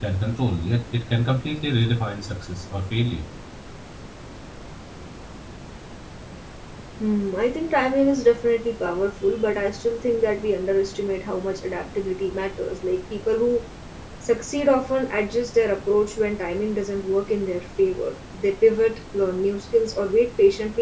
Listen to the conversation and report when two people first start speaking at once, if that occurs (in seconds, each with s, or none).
none